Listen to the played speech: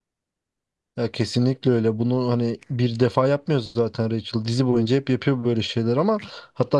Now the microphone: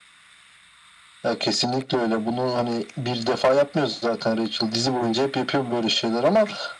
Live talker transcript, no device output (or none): none